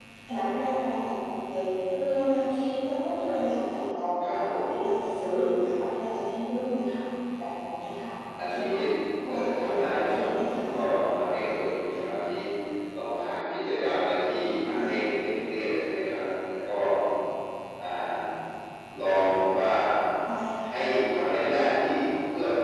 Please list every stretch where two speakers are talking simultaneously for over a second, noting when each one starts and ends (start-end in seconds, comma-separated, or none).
9.3-10.7